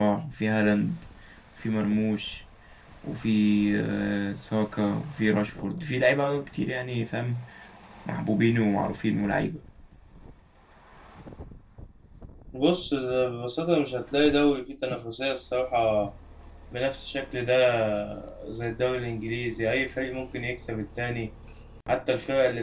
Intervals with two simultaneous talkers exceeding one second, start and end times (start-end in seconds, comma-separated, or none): none